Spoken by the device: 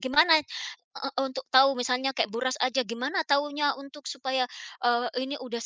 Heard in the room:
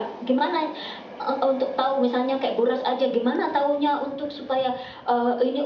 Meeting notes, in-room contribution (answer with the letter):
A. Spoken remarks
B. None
B